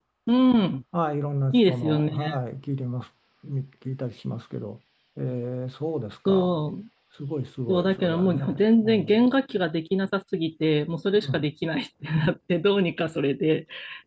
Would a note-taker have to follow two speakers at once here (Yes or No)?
Yes